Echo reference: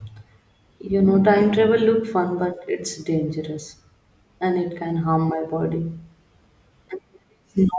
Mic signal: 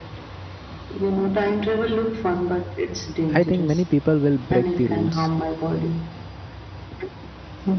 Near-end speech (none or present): present